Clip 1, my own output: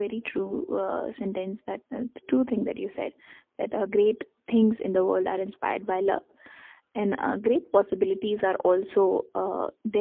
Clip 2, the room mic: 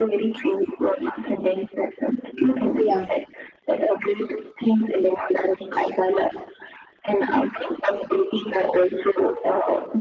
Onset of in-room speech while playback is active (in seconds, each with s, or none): 2.8 s